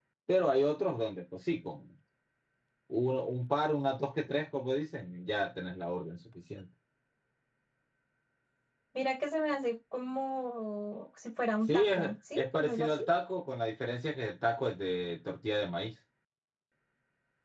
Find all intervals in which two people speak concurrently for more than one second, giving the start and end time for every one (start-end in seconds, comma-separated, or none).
11.6-13.0